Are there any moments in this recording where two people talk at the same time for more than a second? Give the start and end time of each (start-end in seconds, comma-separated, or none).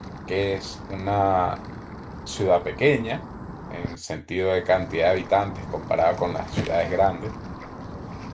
none